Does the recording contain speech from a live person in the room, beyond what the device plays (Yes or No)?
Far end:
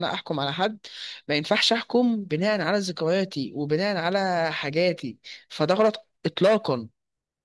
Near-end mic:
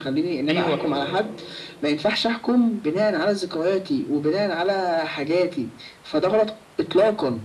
Yes